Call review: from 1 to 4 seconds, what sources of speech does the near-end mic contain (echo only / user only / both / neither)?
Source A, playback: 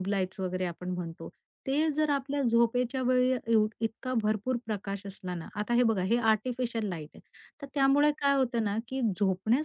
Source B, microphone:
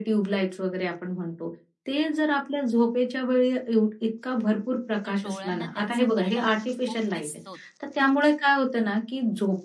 echo only